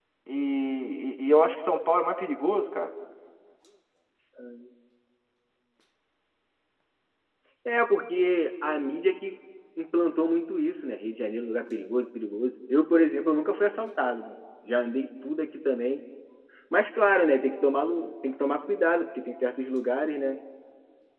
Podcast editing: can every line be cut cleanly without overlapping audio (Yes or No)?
Yes